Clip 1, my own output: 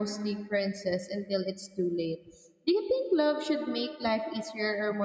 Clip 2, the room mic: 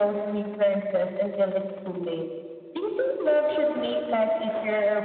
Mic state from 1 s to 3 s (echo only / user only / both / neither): echo only